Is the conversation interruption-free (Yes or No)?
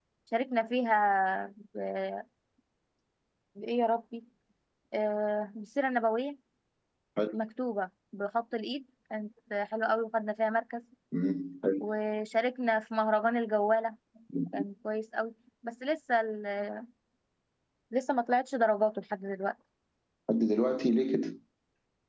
Yes